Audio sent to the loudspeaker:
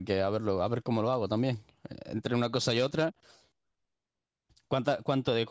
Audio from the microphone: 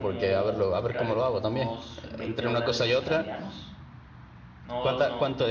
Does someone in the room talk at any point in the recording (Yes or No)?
Yes